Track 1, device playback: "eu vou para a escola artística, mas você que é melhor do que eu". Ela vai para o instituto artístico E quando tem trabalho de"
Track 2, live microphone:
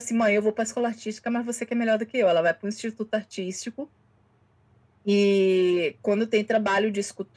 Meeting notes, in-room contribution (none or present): none